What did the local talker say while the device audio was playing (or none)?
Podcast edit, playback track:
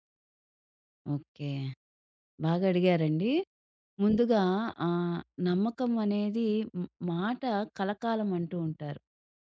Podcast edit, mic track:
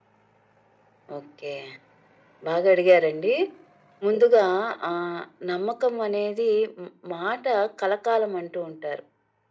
none